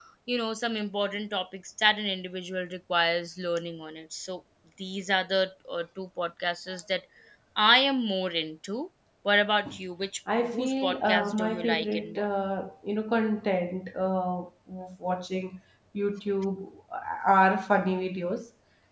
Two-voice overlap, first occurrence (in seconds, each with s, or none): 10.5 s